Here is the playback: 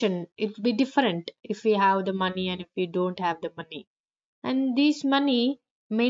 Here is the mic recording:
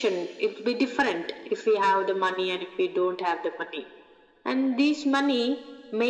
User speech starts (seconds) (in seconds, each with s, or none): none